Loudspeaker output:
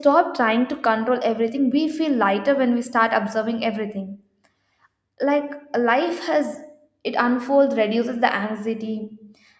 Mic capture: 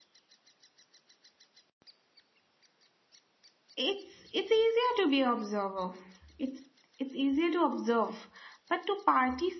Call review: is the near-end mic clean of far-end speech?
Yes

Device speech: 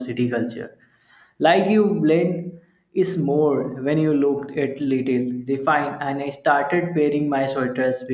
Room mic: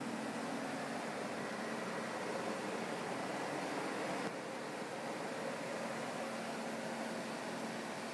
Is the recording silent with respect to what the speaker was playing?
Yes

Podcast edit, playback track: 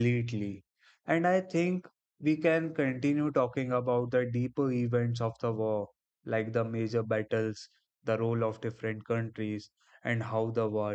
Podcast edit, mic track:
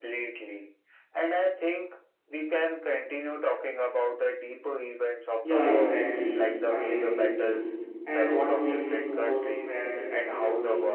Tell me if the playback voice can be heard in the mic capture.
Yes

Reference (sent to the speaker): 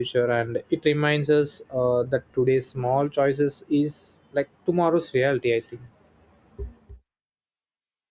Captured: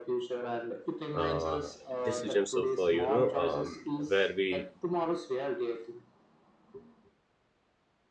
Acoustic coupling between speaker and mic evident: Yes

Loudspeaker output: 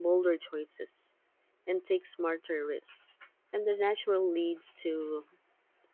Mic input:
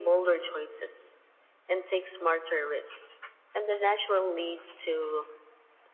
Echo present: Yes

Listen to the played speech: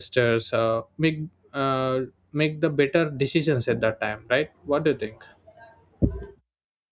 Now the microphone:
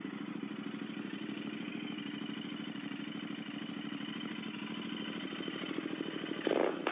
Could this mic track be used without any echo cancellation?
Yes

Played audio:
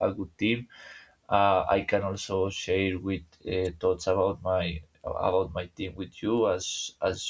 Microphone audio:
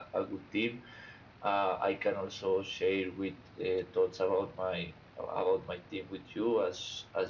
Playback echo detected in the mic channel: Yes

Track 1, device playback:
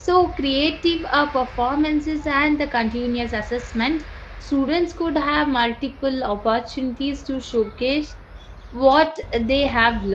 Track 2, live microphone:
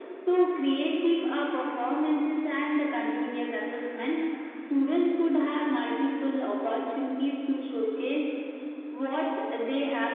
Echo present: Yes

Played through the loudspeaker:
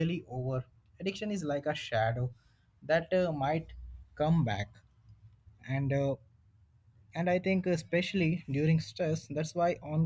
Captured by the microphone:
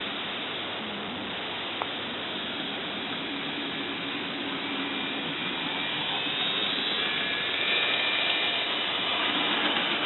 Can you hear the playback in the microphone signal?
No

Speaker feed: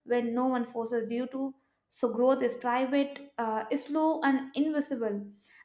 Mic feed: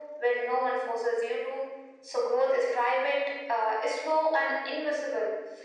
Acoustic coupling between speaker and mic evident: Yes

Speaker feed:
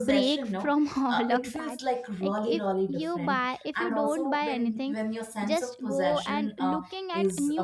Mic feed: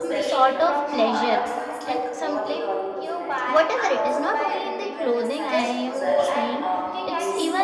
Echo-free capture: No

